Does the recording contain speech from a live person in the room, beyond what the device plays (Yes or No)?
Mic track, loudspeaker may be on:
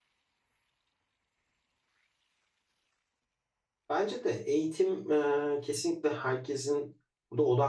Yes